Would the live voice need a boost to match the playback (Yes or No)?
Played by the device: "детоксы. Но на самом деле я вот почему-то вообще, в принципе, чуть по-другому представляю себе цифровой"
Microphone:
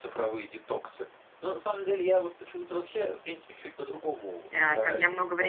No